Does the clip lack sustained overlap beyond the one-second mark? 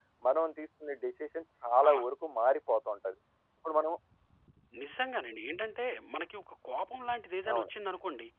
Yes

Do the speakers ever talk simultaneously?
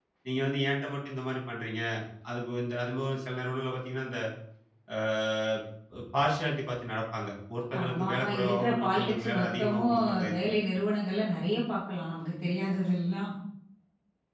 Yes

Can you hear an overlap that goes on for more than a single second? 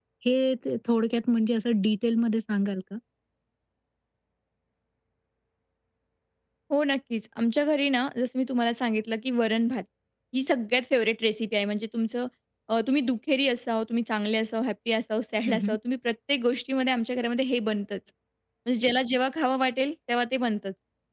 No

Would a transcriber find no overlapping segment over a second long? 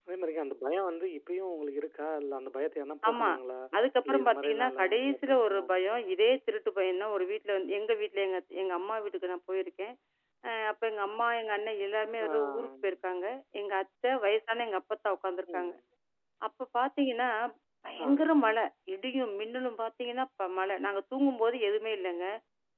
No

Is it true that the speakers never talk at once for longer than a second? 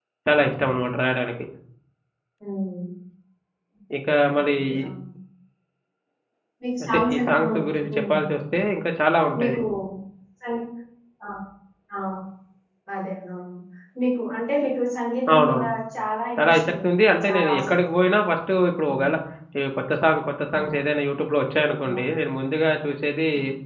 No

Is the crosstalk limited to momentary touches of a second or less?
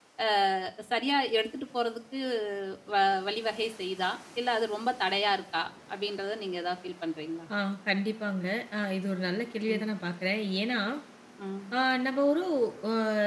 Yes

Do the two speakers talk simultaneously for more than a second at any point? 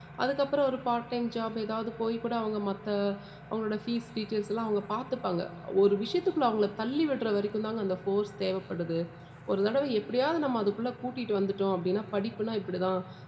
No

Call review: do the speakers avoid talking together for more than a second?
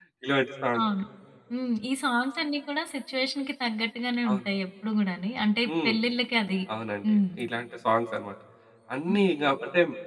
Yes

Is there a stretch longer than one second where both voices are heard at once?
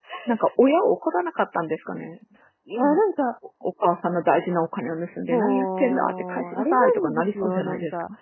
Yes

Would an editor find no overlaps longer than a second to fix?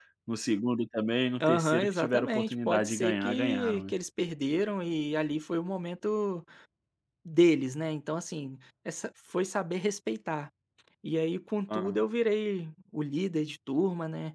No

